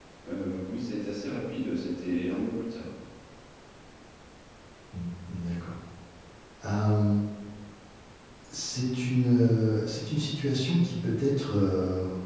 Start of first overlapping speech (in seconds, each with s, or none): none